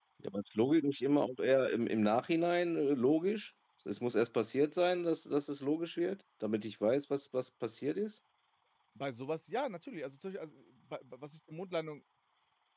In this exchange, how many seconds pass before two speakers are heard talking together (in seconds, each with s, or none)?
none